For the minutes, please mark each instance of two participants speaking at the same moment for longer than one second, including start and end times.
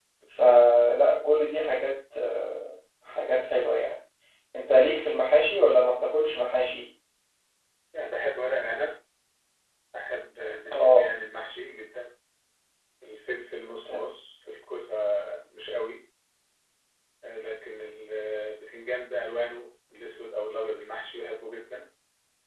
none

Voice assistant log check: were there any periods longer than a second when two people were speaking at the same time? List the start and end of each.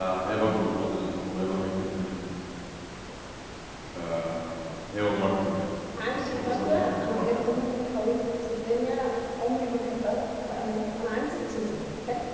6.1-7.5

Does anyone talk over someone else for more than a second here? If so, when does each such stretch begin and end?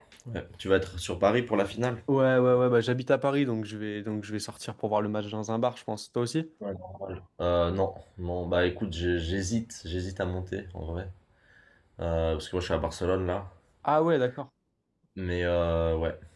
none

